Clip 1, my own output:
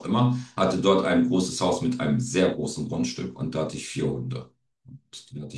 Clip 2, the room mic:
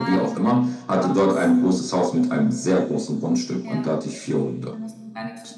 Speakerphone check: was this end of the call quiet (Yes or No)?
No